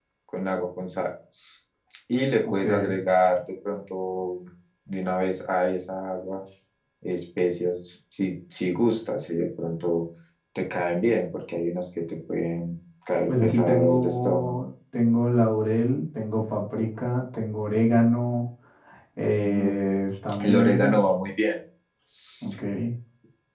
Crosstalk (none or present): present